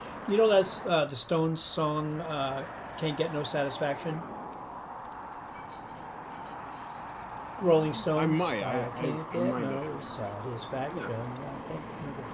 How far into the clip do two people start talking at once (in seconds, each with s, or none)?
7.6 s